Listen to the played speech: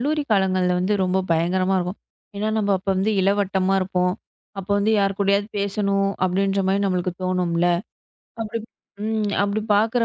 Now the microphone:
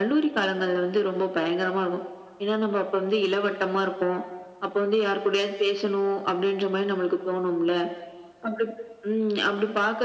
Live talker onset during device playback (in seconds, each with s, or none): none